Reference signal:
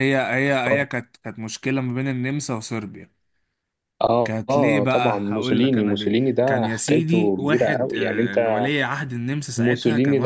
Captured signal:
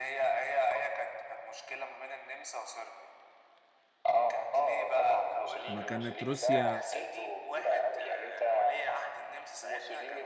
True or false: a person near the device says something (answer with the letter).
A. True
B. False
A